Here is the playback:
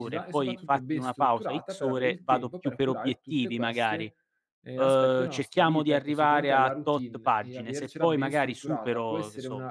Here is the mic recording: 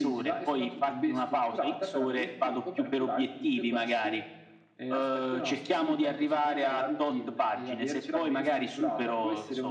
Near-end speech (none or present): none